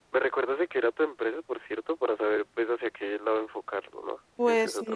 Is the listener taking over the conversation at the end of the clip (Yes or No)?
Yes